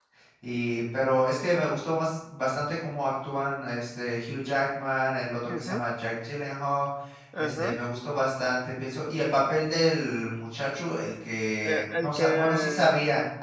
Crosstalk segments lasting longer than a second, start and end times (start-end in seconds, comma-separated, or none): 11.6-12.9